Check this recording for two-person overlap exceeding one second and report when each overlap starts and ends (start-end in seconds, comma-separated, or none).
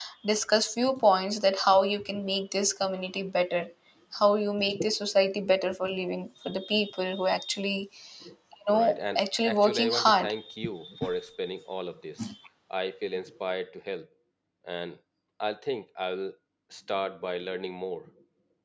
8.7-10.3